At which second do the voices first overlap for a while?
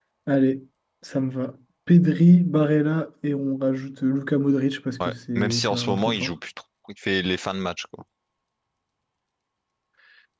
5.0 s

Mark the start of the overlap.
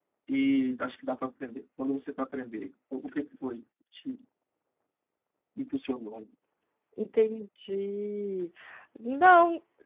none

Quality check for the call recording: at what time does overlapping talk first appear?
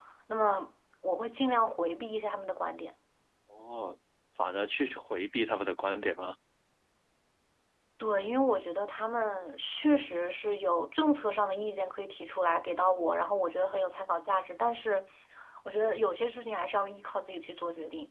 none

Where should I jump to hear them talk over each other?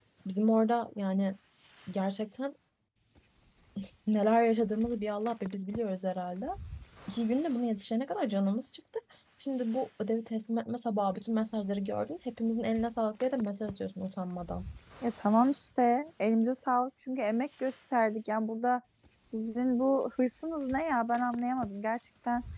none

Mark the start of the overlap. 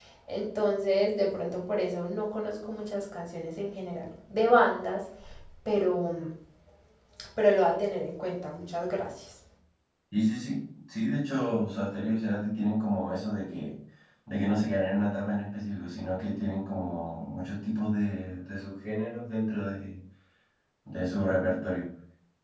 none

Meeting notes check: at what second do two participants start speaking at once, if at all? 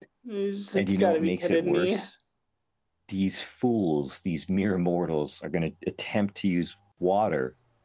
0.8 s

